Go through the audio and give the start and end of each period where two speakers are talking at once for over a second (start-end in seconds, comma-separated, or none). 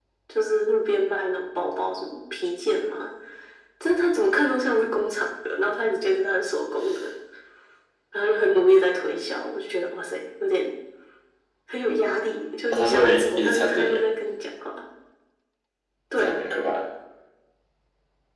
12.7-14.0